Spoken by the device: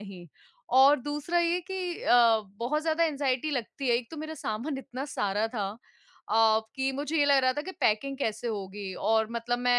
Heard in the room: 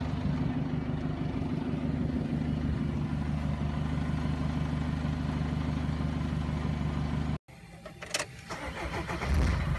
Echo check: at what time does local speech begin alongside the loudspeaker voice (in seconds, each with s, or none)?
none